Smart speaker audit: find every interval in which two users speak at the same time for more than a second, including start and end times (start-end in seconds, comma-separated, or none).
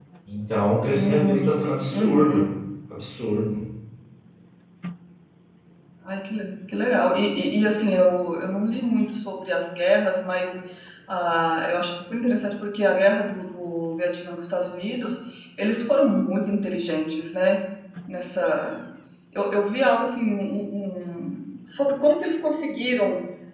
0.9-2.5